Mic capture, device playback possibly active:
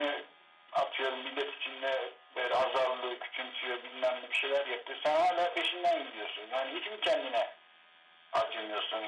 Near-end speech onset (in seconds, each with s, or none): none